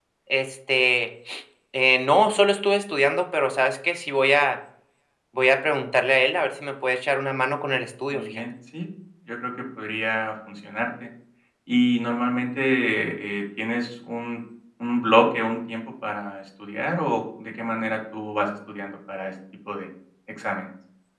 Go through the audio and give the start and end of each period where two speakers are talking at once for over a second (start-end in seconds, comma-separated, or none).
none